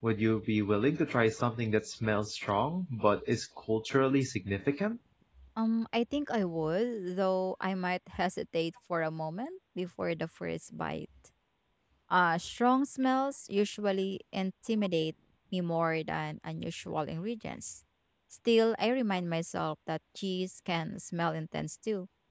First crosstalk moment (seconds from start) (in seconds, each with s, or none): none